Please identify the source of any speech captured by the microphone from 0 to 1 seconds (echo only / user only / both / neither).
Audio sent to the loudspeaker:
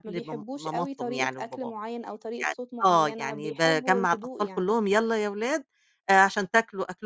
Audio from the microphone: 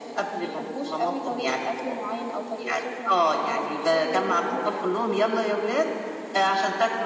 echo only